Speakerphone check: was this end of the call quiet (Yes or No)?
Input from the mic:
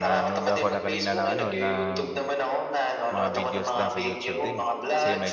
No